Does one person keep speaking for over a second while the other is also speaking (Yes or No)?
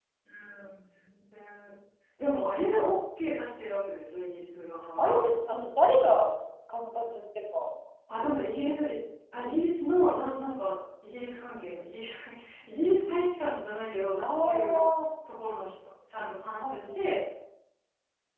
No